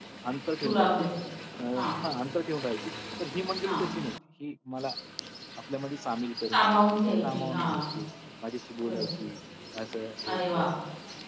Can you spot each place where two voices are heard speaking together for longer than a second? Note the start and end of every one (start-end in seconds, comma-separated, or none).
6.5-7.8